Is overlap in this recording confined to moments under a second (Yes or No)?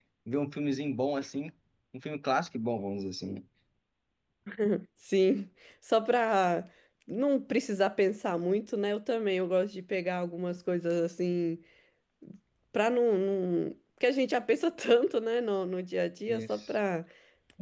Yes